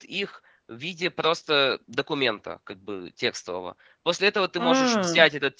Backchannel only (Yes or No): Yes